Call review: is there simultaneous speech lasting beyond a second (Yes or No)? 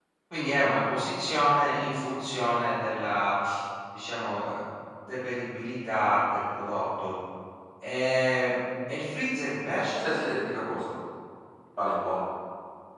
No